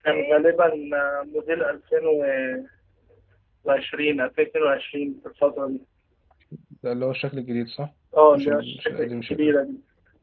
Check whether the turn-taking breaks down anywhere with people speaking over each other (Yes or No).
Yes